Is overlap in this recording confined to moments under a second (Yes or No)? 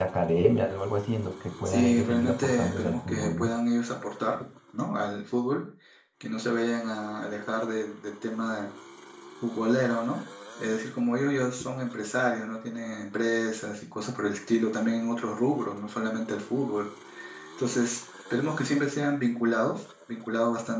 No